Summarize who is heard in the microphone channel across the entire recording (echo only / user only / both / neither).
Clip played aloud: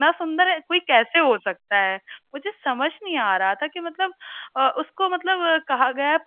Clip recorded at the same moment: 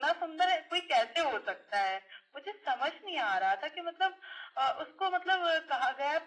echo only